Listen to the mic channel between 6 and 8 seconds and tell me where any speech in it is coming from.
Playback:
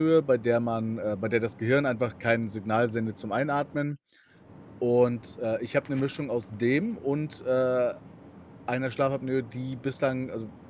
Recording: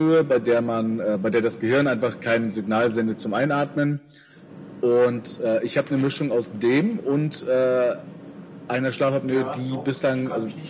echo only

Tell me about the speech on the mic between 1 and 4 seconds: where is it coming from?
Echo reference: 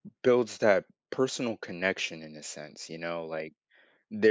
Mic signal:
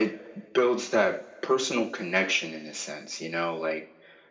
echo only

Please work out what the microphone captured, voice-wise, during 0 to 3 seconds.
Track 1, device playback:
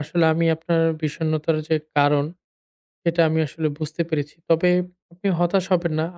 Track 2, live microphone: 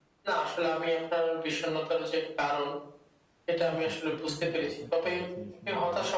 echo only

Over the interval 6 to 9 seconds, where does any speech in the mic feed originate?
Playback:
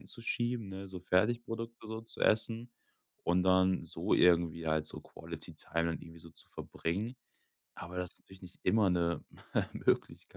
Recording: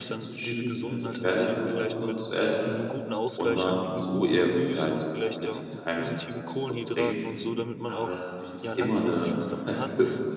both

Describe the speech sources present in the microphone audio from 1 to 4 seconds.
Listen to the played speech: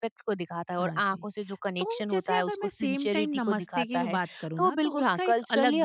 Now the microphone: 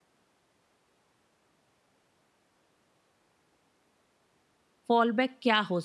neither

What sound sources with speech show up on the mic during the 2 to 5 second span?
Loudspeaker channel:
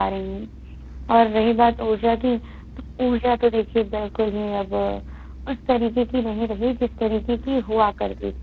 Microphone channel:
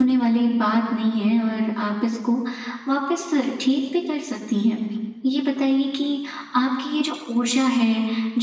user only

